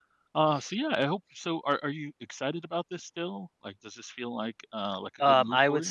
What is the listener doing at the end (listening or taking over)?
taking over